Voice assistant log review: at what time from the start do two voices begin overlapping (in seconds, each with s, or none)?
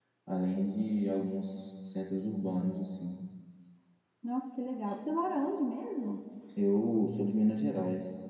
none